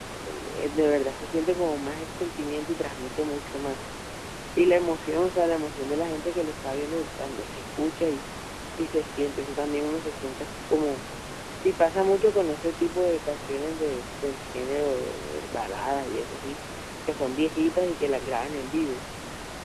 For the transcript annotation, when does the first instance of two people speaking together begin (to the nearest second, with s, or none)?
none